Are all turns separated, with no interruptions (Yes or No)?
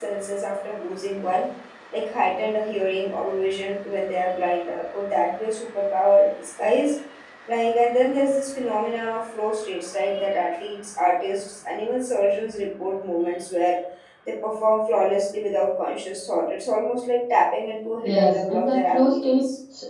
No